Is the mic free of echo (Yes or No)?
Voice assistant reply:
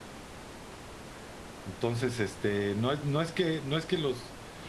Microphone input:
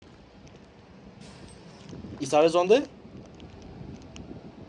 Yes